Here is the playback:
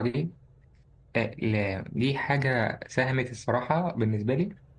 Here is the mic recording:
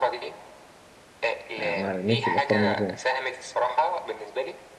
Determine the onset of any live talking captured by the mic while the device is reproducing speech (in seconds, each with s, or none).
1.6 s